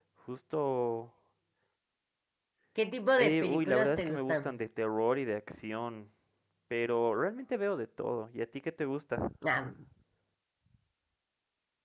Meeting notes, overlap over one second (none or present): present